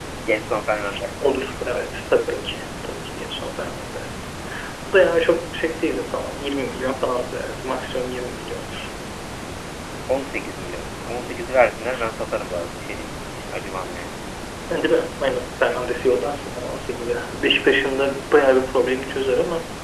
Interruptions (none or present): none